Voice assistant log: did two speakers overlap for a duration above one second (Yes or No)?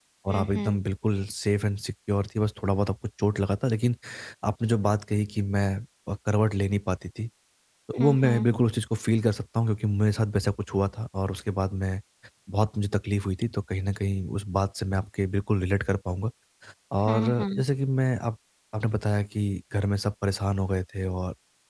No